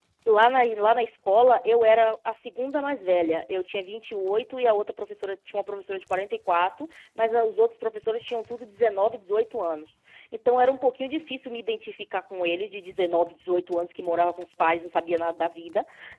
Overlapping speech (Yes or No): No